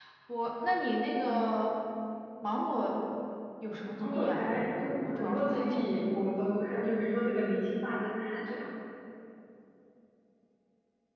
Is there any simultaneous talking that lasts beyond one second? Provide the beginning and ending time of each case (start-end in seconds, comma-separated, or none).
4.0-5.9